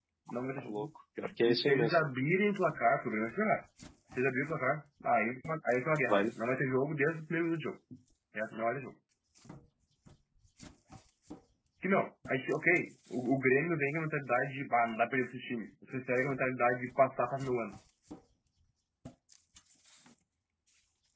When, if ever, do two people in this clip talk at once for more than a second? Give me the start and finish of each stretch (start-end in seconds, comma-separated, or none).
none